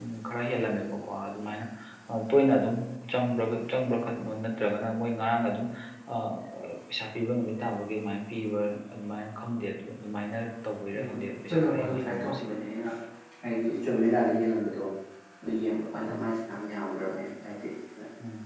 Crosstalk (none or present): present